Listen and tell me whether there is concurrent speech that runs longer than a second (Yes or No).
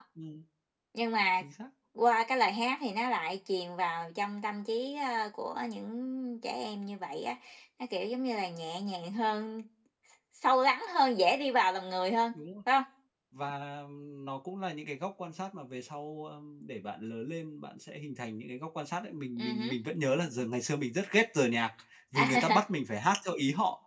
No